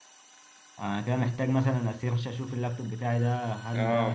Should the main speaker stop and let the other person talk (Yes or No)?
Yes